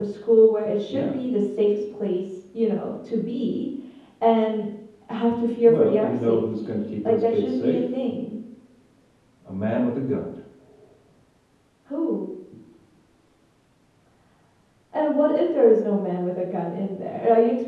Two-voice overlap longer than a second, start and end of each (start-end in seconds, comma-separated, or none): 5.6-7.9